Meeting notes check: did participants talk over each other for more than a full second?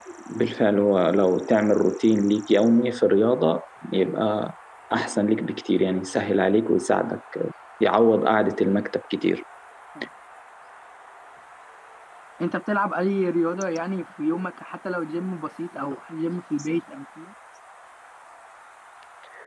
No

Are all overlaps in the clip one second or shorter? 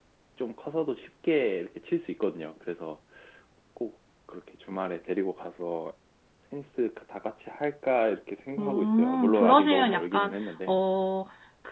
No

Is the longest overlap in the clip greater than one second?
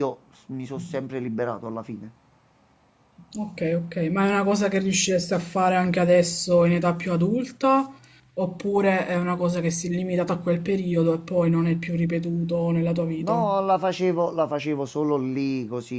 No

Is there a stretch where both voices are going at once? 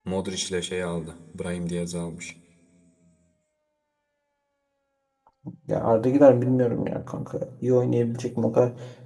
No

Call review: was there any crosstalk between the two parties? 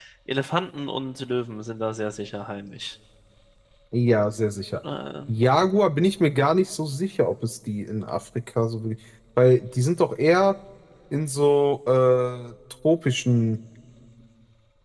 No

